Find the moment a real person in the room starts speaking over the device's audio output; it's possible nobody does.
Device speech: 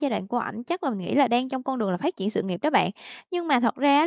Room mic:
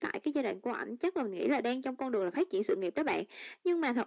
none

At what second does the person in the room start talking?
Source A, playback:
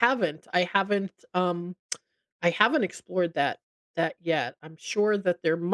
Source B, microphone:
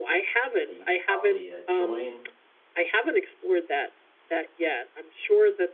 1 s

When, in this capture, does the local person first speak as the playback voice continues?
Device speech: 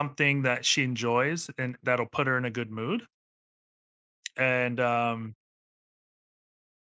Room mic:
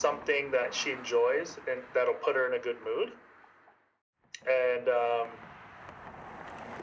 none

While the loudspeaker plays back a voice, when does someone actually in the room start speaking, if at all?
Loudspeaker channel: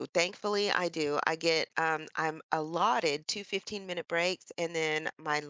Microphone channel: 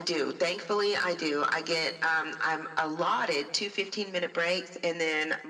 none

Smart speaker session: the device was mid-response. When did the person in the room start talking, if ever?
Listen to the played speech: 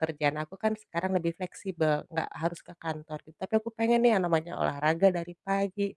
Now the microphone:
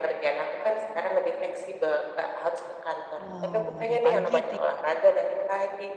3 s

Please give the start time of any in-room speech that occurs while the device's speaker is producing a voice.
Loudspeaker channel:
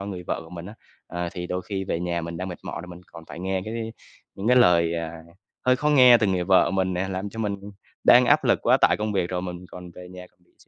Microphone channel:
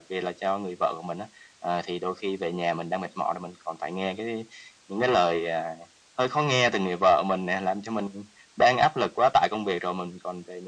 none

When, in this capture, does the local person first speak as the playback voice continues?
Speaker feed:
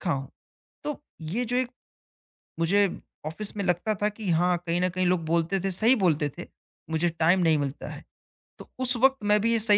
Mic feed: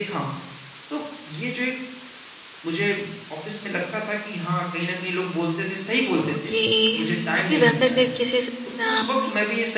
6 s

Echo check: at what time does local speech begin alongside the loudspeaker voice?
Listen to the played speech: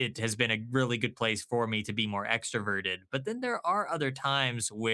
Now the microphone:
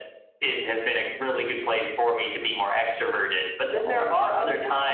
4 s

